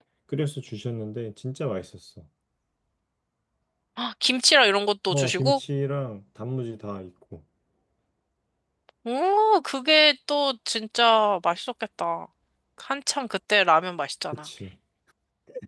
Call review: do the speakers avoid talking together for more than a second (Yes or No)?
Yes